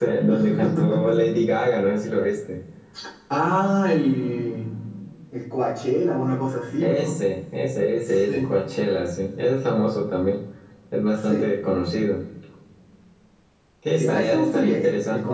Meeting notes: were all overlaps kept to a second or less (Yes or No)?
No